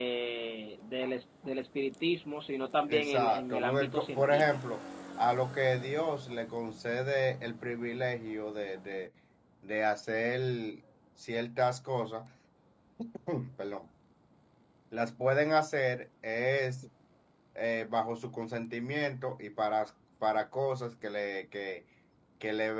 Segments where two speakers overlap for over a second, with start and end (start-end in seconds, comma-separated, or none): 2.9-4.8